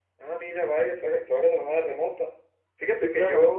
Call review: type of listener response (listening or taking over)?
listening